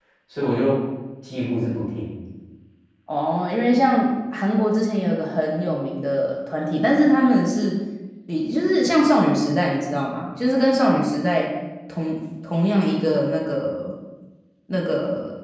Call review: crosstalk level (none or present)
none